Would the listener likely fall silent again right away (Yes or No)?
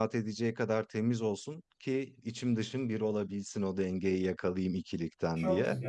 No